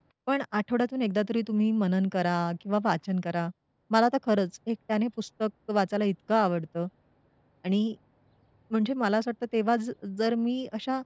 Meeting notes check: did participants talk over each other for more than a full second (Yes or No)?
No